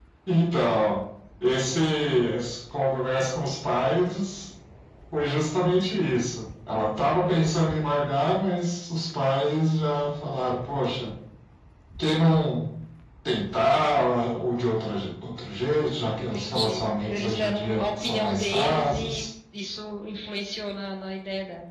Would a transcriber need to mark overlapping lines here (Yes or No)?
Yes